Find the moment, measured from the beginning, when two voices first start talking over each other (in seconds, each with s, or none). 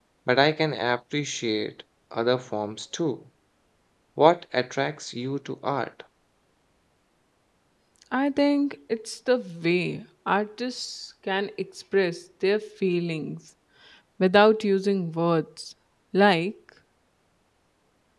none